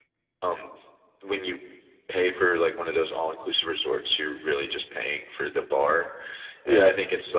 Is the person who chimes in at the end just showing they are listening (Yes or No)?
Yes